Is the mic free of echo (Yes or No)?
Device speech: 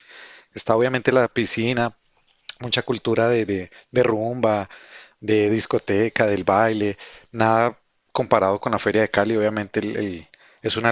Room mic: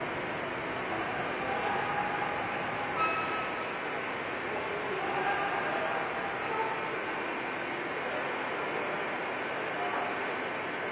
Yes